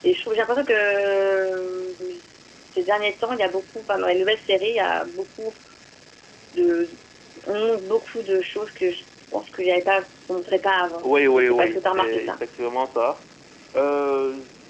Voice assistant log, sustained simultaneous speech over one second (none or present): present